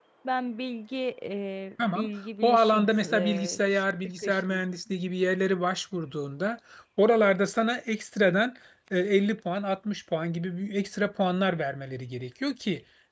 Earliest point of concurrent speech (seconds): 1.9 s

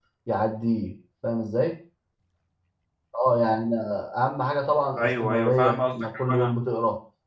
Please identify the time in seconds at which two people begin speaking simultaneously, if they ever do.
5.0 s

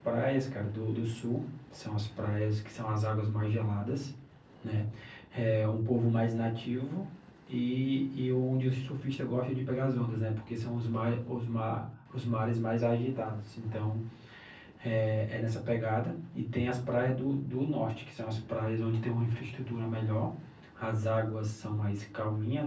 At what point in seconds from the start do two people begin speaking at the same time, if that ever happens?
none

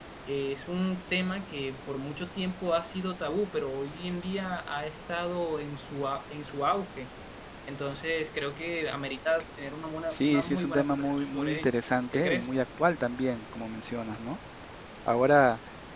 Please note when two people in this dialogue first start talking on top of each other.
10.1 s

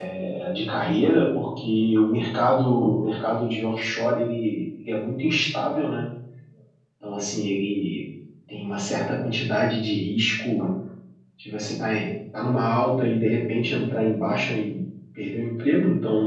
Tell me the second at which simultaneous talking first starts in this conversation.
none

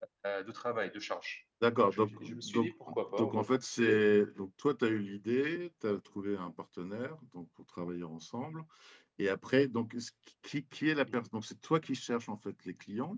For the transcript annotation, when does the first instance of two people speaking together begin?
1.6 s

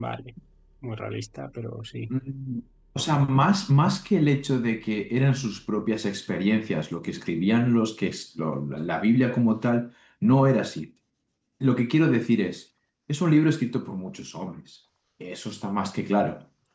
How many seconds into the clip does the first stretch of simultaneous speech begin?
none

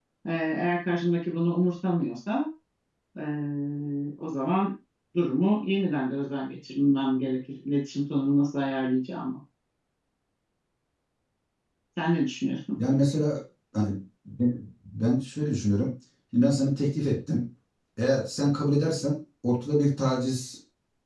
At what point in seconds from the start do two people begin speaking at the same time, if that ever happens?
none

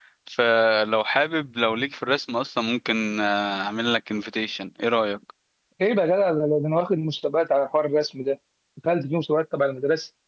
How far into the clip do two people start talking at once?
none

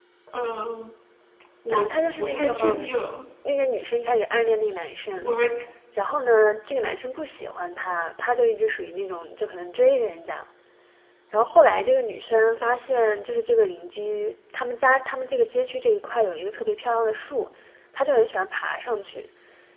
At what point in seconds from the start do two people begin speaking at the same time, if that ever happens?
1.7 s

